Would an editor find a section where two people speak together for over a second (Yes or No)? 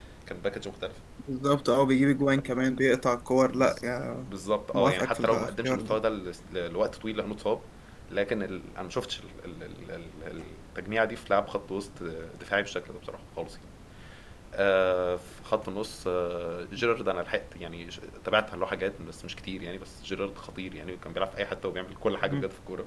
Yes